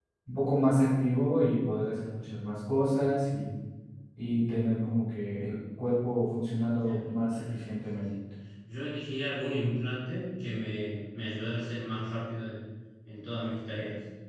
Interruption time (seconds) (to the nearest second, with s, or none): 7 s